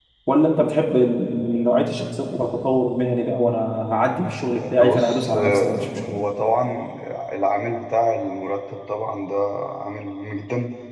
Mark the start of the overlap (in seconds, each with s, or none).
4.6 s